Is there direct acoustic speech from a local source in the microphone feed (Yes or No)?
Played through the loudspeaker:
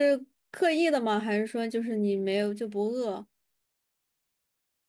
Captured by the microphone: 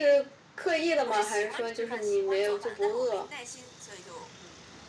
Yes